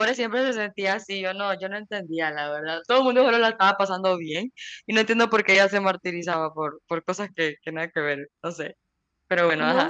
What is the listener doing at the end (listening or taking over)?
taking over